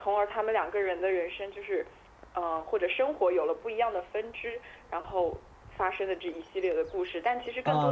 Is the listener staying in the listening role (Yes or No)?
No